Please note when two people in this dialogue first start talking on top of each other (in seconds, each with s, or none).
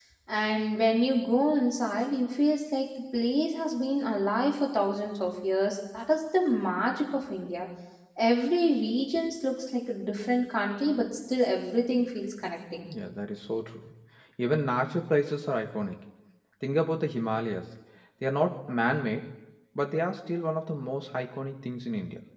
none